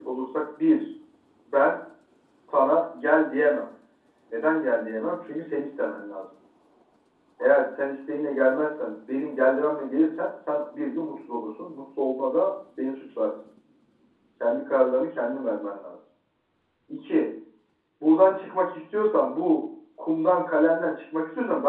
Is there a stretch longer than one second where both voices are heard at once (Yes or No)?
No